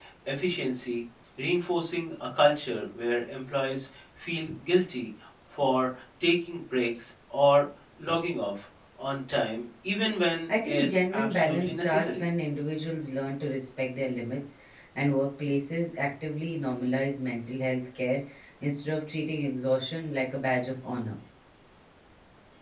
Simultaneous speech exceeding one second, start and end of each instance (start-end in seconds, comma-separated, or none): 10.5-12.2